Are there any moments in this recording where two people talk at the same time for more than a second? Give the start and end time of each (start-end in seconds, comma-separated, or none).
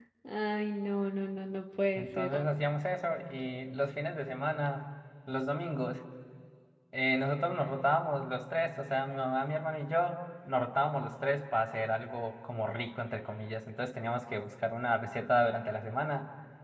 none